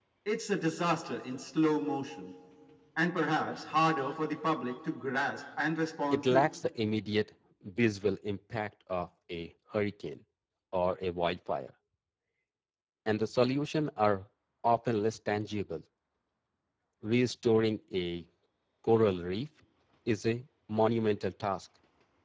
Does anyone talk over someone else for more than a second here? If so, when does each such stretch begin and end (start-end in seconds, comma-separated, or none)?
none